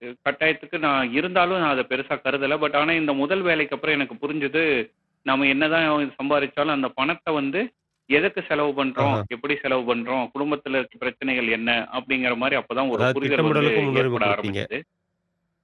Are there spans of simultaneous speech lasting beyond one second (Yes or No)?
Yes